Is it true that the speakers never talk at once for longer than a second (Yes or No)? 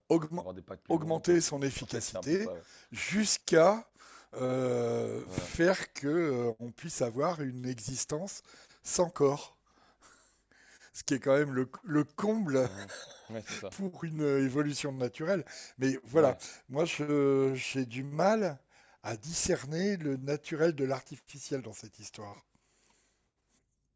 No